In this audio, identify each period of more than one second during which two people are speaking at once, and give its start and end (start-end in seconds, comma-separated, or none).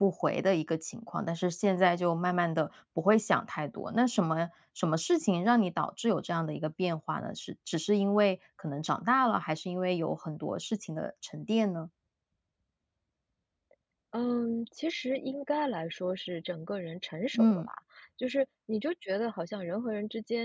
none